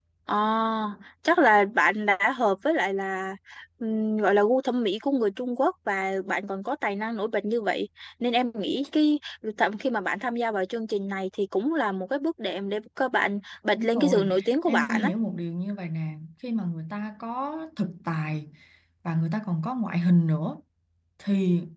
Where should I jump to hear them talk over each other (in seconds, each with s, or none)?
13.7 s